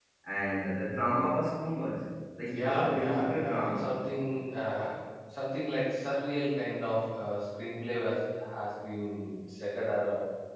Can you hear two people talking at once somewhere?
Yes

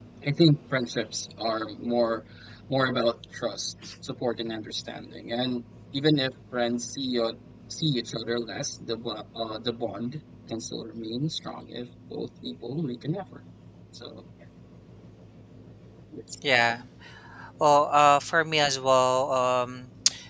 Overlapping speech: No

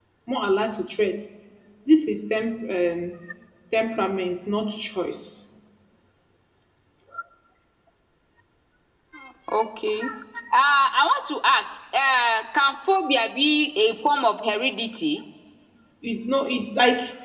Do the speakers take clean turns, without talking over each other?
Yes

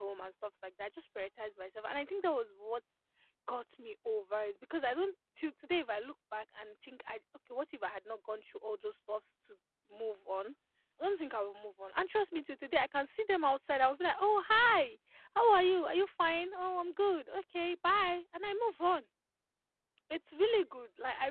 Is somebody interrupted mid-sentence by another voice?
No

